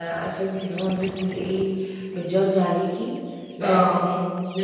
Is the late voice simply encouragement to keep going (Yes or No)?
Yes